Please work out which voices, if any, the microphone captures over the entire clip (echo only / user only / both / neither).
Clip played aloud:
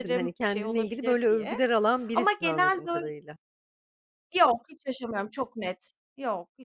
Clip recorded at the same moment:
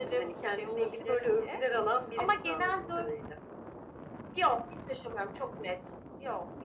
echo only